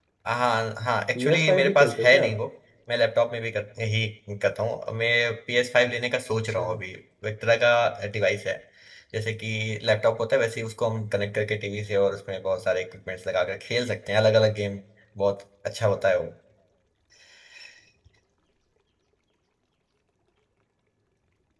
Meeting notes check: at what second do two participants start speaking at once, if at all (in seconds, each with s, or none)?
1.2 s